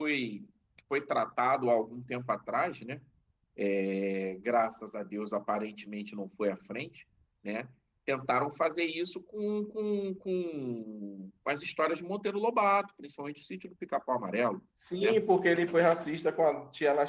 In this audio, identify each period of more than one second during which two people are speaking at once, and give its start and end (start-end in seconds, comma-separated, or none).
none